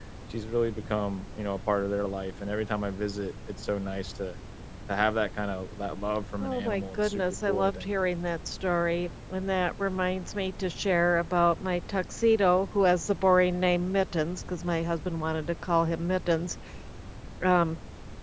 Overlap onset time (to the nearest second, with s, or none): 6 s